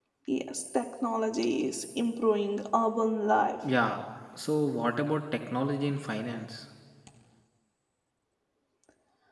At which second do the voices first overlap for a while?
none

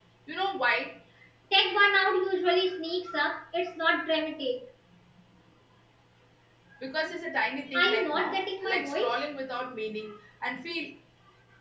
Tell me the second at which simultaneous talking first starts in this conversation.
7.7 s

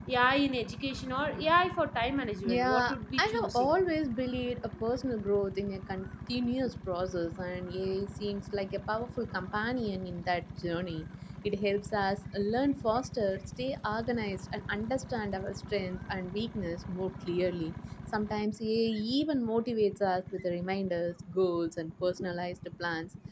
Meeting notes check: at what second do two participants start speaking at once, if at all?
2.5 s

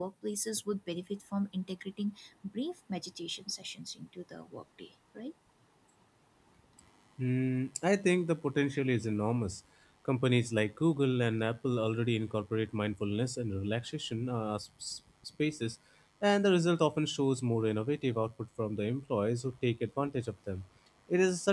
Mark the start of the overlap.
none

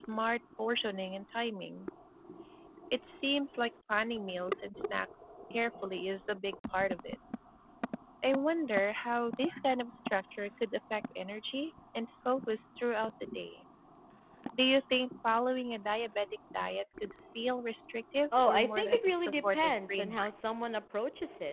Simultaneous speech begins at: 18.3 s

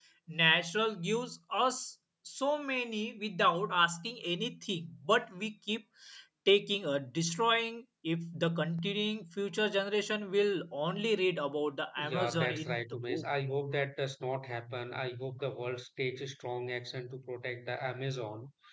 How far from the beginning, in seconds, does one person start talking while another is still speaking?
12.0 s

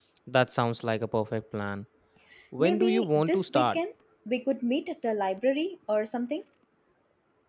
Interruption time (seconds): 2.6 s

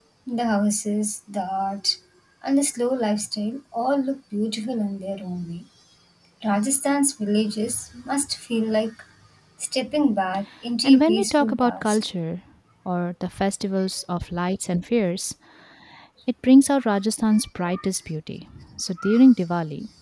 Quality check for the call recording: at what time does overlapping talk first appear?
10.8 s

